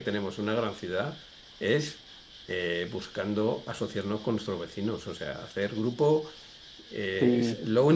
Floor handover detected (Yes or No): No